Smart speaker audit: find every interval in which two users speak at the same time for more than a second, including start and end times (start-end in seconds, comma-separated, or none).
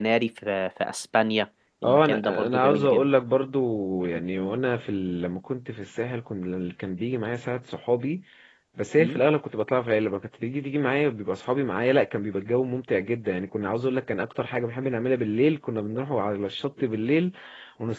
1.8-3.1